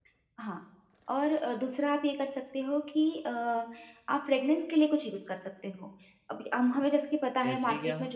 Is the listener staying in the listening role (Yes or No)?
Yes